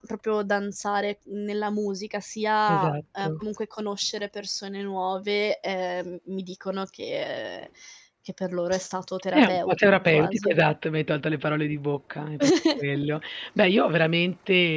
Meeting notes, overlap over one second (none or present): present